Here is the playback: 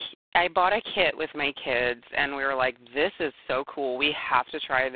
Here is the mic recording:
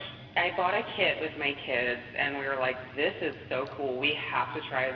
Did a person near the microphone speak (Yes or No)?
No